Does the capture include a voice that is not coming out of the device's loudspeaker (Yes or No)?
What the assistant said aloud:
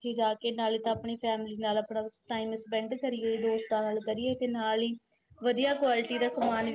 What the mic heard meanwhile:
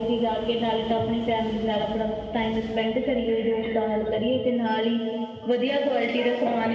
No